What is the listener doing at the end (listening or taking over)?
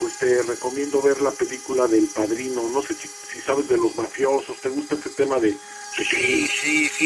taking over